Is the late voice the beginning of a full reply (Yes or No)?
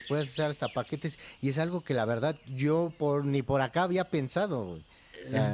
Yes